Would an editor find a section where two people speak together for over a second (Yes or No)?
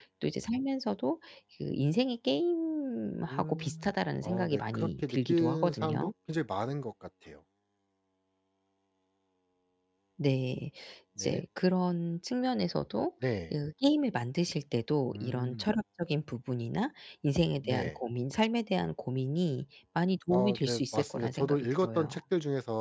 Yes